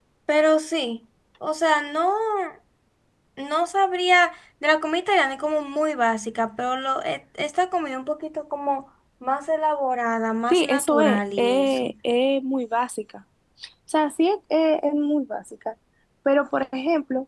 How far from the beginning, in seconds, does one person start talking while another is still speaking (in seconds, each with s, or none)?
10.5 s